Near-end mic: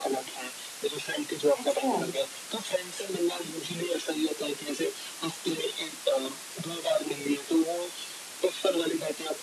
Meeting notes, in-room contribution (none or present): present